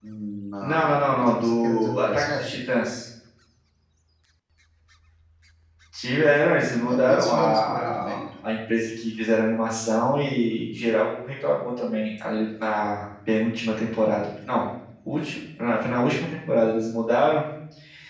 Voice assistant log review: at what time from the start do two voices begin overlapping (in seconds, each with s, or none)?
0.6 s